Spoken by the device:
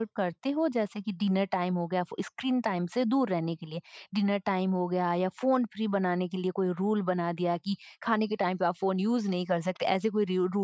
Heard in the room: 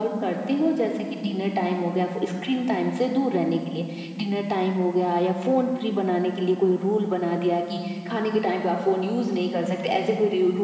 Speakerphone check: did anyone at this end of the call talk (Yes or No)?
No